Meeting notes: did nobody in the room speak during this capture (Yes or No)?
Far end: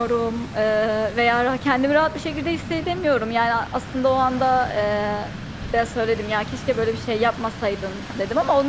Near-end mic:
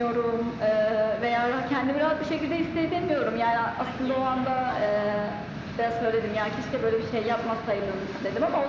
No